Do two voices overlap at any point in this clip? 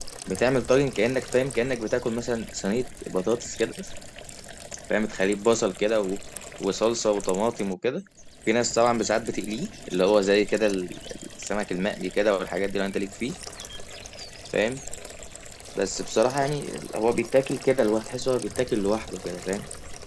No

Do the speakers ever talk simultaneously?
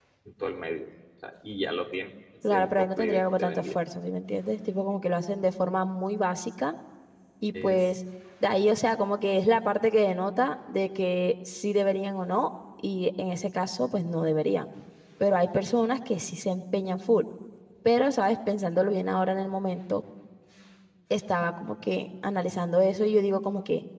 Yes, from 2.5 s

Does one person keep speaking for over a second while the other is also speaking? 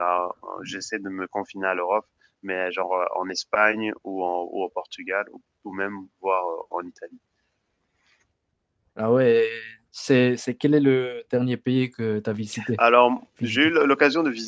No

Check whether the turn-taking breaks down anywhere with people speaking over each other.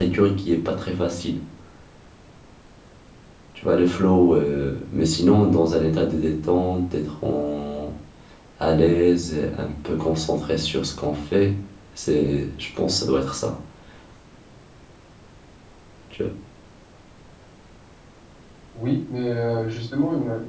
No

